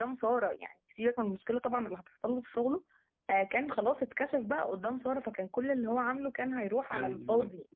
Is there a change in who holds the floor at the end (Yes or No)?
Yes